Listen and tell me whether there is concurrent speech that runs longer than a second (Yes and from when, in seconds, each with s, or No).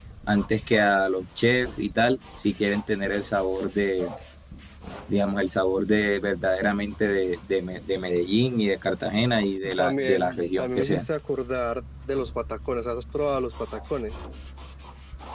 Yes, from 9.6 s